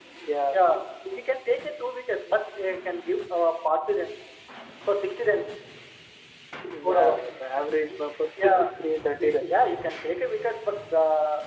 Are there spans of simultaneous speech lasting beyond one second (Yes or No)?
No